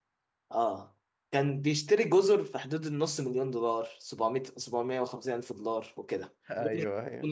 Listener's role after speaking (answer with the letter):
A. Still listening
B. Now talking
A